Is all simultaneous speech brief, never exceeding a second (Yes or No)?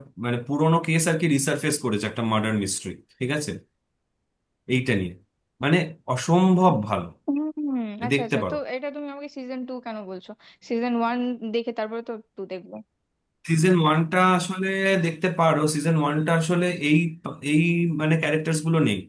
Yes